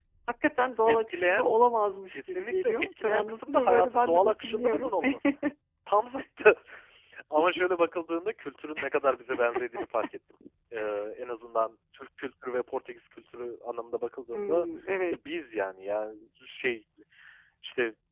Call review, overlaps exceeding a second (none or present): present